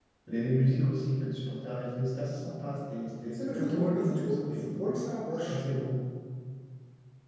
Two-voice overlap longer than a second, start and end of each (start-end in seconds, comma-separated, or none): 3.3-4.7